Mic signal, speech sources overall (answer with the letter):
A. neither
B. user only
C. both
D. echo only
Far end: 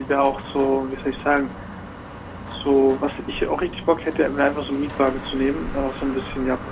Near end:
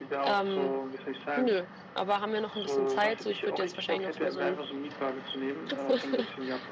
C